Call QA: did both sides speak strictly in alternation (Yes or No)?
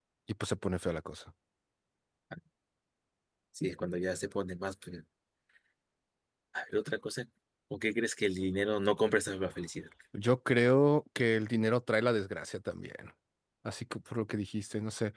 Yes